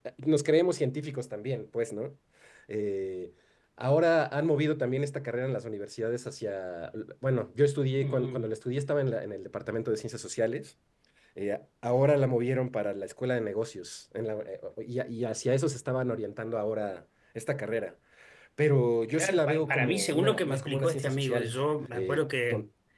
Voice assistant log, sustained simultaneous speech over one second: present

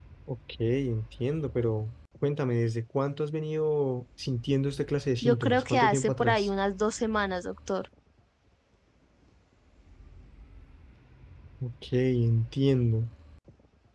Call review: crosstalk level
present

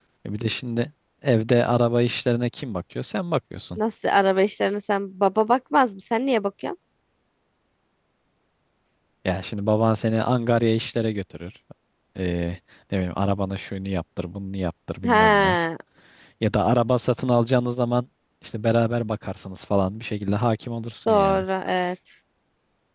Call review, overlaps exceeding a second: none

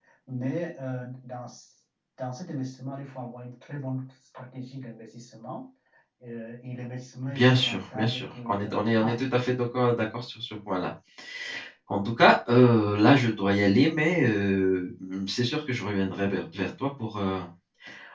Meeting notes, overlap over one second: present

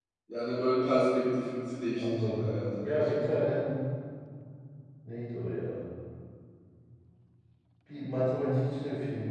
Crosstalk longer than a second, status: present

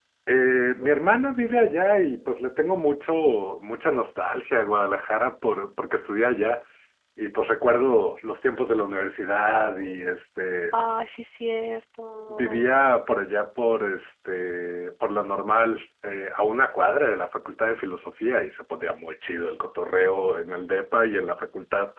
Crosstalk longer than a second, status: none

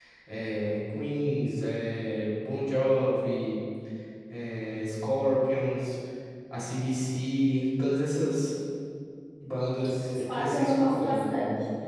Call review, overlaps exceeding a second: present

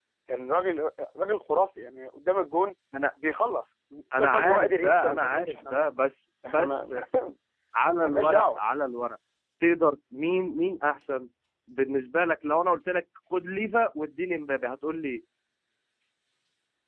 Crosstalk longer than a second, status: present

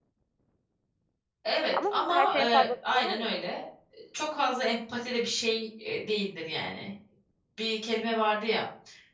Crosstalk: present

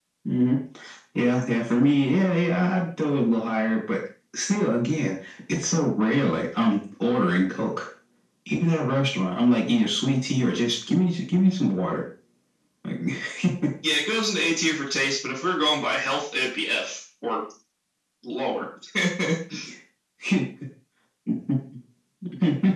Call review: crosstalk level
none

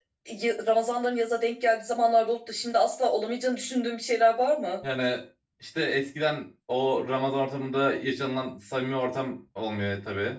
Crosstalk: none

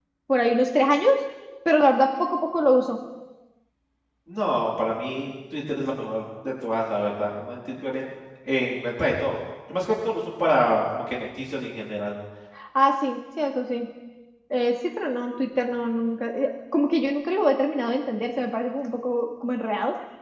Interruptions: none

